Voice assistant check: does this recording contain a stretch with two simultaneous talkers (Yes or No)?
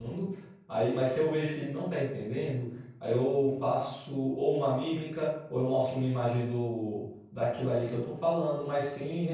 No